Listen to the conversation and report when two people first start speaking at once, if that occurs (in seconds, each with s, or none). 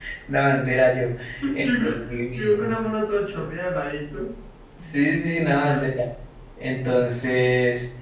1.5 s